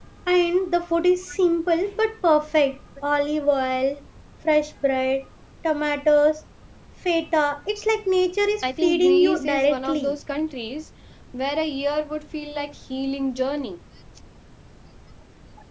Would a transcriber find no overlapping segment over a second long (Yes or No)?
No